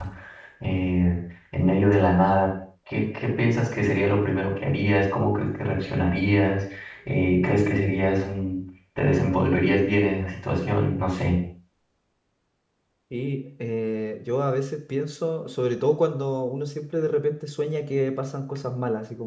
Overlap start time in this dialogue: none

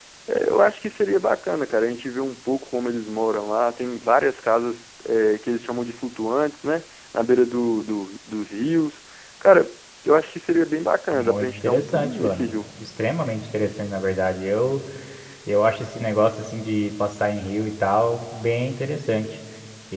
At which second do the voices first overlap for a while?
11.1 s

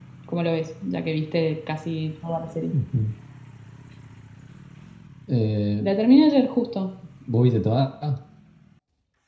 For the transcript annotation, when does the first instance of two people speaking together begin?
none

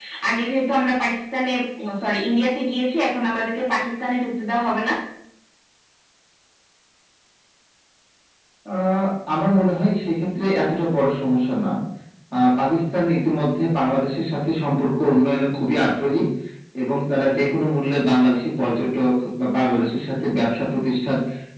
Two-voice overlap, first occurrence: none

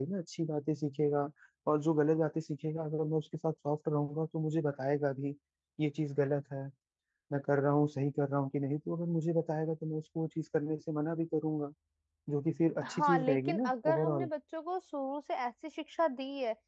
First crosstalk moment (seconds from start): 12.8 s

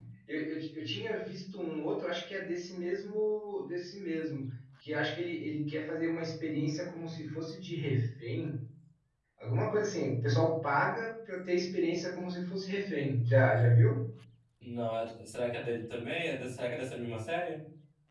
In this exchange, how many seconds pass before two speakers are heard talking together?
none

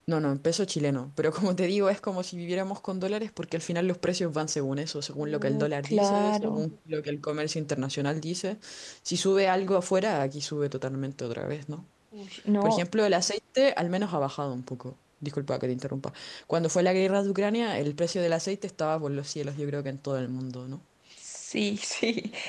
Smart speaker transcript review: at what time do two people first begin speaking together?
5.2 s

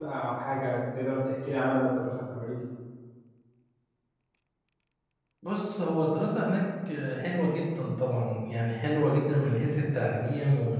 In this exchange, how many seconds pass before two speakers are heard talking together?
none

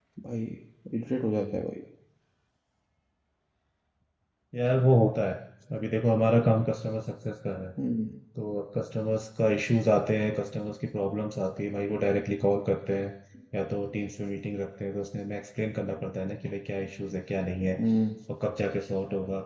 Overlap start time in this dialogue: none

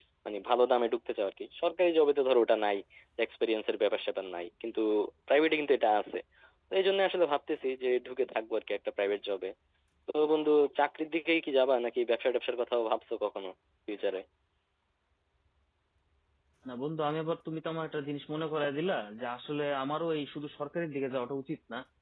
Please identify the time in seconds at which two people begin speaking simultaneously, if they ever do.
none

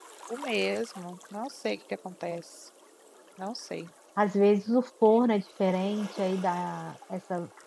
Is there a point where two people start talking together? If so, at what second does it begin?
none

